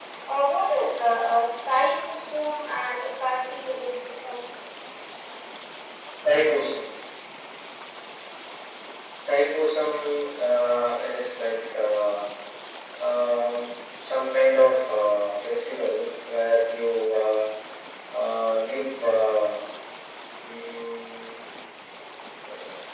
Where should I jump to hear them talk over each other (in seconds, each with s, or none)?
none